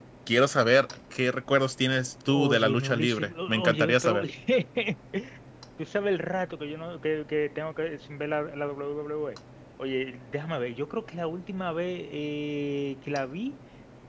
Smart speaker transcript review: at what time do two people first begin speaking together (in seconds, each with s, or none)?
2.3 s